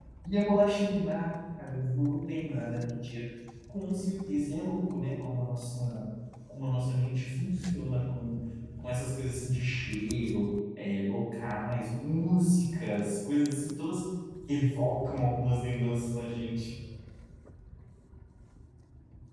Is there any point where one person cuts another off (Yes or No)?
No